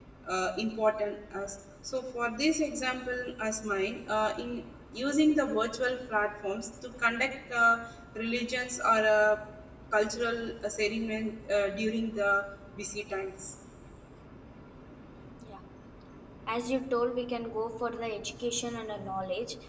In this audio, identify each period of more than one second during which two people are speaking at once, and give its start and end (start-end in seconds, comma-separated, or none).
none